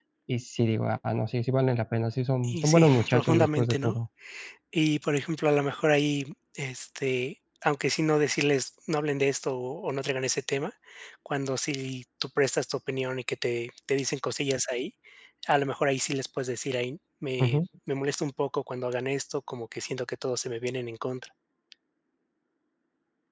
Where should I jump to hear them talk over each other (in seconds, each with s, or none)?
2.4 s